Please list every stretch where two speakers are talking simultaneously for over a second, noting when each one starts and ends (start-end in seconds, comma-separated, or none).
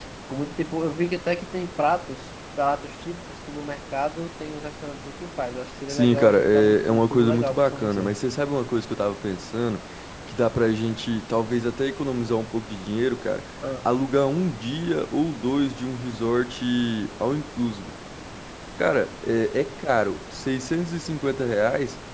5.9-8.1